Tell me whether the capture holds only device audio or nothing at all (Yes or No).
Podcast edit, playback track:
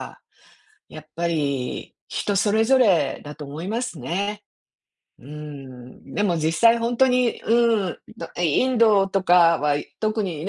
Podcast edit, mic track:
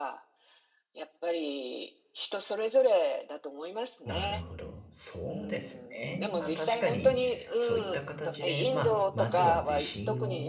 No